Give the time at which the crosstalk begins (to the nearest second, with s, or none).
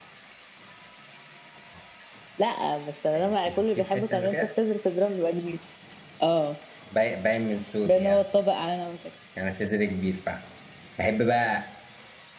3 s